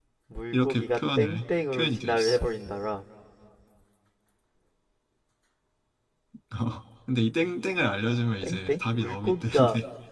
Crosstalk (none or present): present